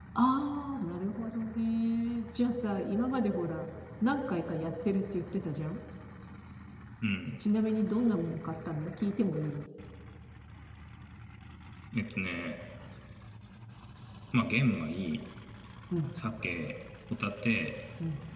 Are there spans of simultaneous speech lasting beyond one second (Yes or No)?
No